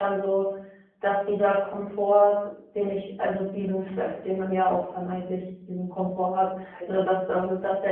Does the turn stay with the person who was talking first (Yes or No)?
Yes